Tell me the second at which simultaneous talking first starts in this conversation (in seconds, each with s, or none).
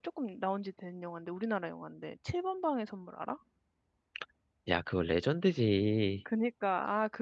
none